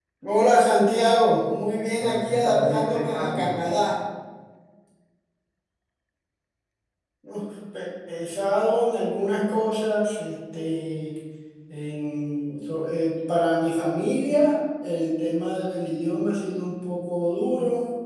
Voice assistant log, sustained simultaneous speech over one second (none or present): present